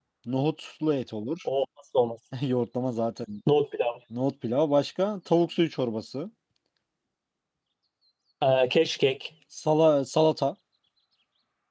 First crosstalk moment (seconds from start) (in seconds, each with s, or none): none